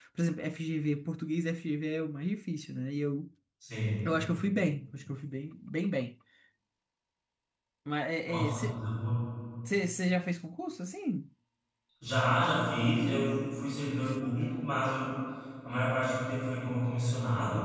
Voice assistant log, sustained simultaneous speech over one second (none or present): none